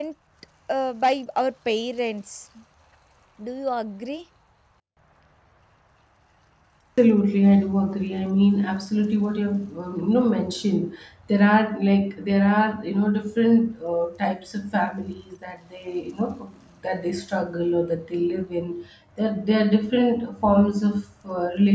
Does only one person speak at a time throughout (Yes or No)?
Yes